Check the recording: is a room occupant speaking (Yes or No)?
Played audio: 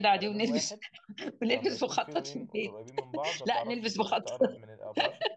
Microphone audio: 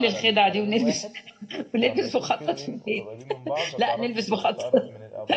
No